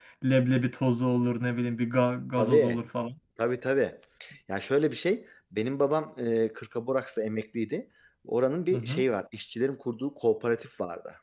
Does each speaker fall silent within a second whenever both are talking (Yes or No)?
Yes